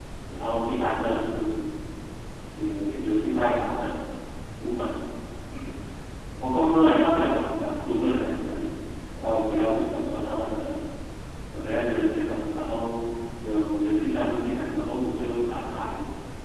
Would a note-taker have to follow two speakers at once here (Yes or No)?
No